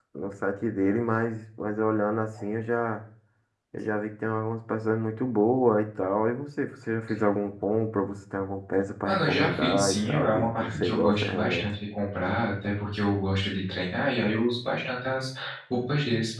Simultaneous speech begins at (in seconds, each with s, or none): 9.1 s